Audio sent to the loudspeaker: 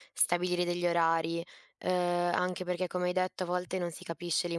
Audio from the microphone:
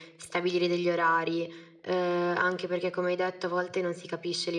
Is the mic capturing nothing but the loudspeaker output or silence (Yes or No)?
Yes